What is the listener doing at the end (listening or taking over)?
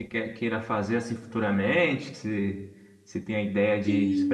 taking over